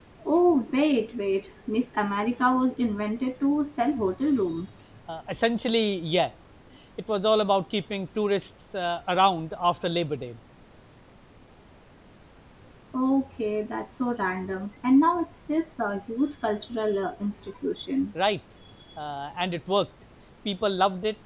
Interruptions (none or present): none